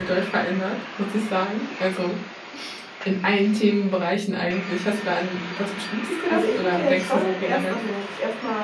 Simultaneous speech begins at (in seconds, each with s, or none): 6.3 s